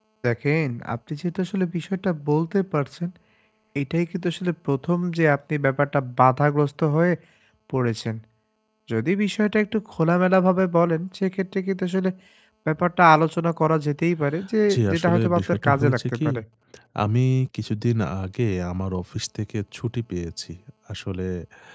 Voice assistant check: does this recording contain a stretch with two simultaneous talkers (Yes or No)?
Yes